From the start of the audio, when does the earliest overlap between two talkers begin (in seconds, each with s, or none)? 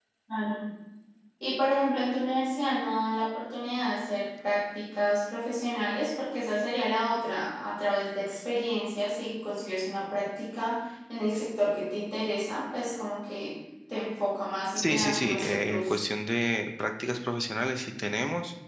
14.8 s